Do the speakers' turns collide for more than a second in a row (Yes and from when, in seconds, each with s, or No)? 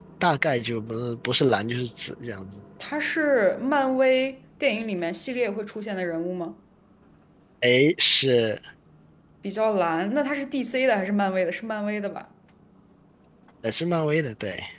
No